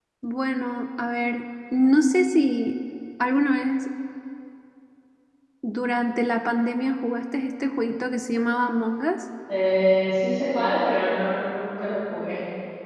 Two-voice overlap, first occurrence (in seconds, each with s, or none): none